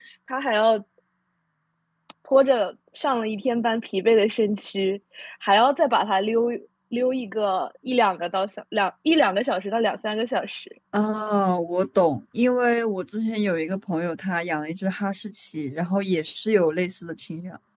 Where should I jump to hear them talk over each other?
none

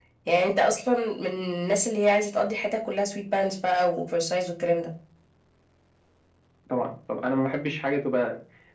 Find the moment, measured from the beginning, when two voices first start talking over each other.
none

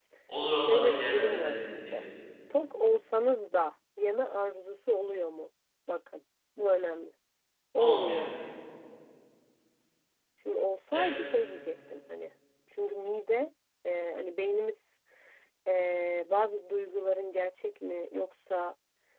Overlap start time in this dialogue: 0.6 s

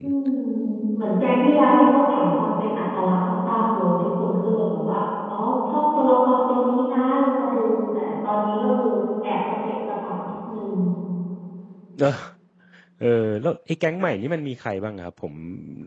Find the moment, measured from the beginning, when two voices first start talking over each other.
none

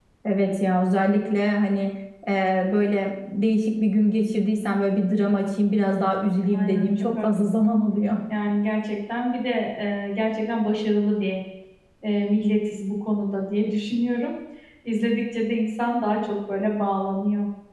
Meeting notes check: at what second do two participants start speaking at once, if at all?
6.5 s

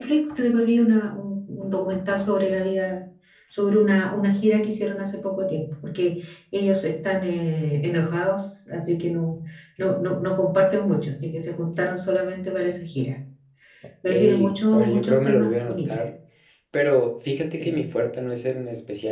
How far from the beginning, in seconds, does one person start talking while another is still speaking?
14.1 s

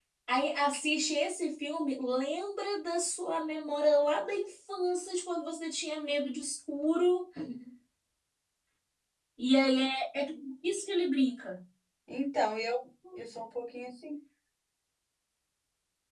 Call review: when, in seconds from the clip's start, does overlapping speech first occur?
none

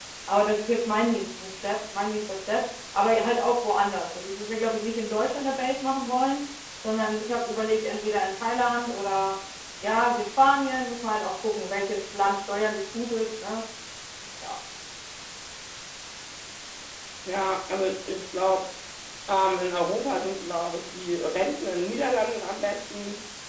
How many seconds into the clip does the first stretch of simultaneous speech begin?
none

